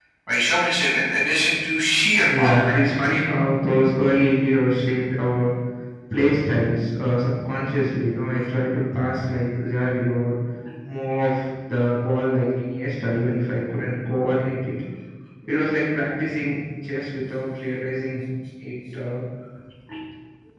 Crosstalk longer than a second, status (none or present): none